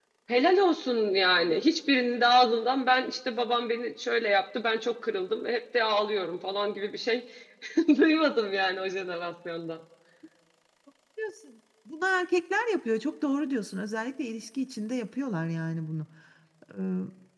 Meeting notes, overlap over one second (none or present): none